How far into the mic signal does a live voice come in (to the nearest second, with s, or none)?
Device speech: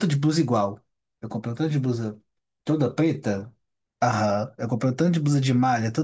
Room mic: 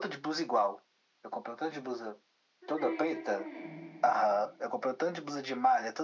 3 s